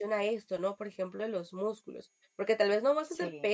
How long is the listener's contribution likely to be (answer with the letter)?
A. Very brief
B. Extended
A